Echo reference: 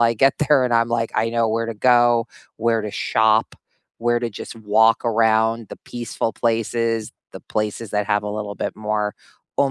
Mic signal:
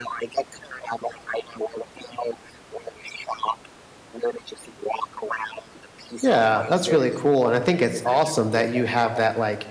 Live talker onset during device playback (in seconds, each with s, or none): 6.2 s